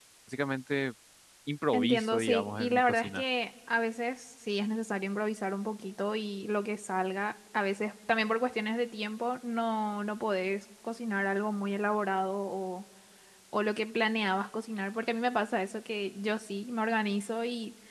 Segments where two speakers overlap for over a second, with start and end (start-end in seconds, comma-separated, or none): 1.7-3.2